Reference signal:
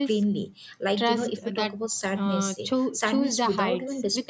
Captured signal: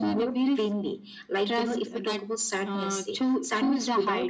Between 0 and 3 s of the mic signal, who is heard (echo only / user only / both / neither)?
echo only